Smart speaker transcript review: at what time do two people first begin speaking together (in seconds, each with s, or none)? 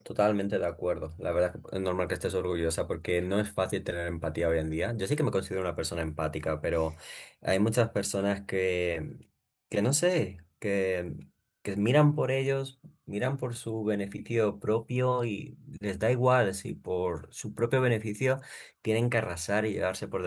none